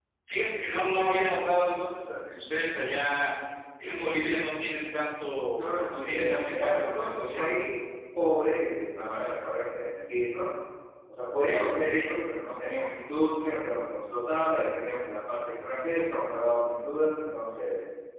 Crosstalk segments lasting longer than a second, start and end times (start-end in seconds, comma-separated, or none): 5.6-7.5